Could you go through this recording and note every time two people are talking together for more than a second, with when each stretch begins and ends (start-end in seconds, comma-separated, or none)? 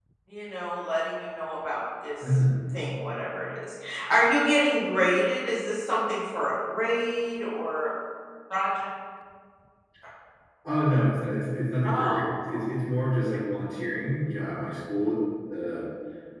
none